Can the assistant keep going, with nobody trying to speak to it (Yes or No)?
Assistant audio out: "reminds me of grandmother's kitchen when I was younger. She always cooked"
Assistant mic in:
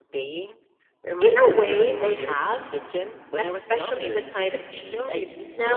No